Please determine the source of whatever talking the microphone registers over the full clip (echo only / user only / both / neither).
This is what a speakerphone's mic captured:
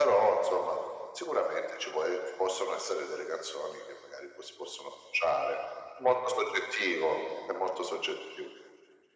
echo only